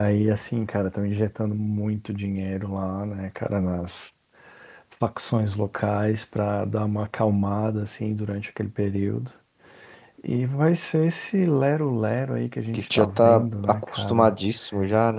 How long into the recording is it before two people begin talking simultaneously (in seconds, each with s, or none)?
12.7 s